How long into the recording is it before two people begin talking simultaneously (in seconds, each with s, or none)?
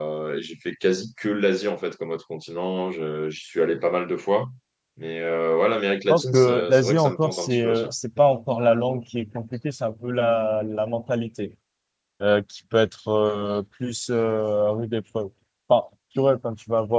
6.1 s